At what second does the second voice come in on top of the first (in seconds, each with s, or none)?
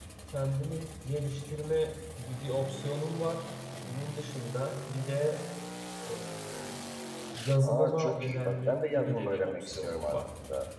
7.6 s